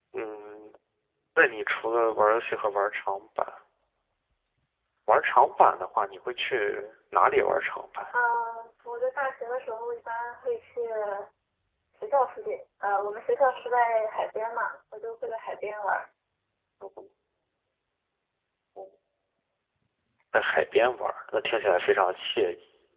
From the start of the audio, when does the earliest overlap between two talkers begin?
none

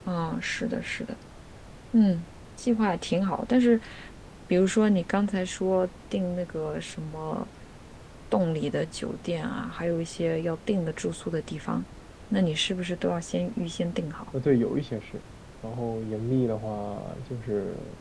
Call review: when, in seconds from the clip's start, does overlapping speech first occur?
none

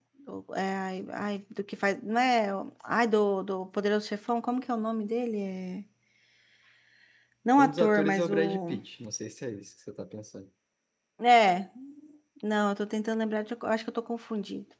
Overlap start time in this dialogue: 7.6 s

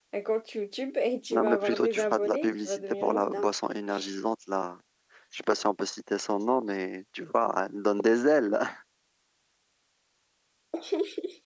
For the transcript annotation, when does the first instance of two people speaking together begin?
1.3 s

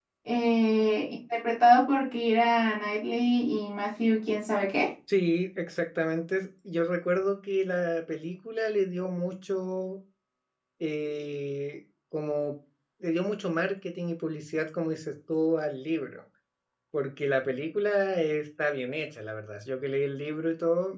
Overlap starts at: none

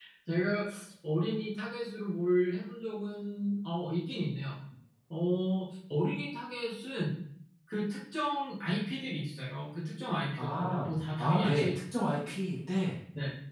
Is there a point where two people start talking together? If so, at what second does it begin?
10.4 s

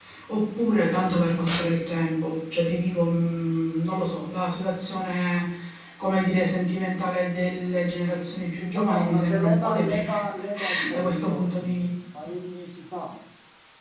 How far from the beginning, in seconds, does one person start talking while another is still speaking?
8.7 s

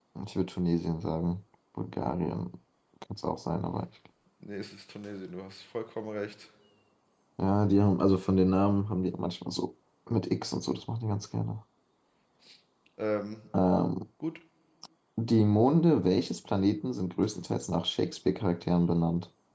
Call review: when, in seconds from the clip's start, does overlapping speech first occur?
none

